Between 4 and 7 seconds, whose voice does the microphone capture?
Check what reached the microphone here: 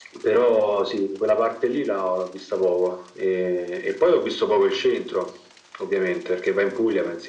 echo only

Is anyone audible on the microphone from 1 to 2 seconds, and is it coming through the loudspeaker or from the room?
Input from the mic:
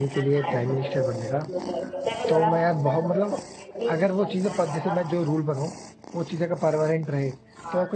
both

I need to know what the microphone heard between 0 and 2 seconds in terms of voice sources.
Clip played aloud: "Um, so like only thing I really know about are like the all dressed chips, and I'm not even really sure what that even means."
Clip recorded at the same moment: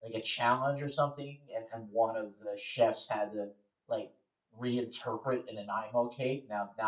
user only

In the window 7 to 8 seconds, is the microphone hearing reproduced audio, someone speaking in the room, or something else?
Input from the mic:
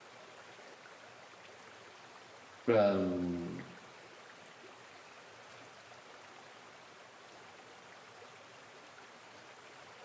neither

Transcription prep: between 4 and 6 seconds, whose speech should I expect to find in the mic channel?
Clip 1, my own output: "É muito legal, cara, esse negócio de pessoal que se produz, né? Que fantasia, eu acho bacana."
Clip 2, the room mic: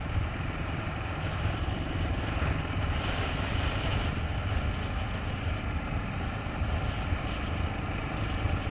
neither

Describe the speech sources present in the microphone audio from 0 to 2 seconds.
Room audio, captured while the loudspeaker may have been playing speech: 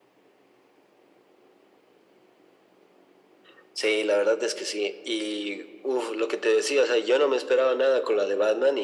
neither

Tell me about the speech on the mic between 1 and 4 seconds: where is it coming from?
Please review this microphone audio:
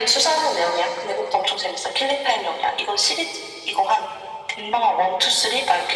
echo only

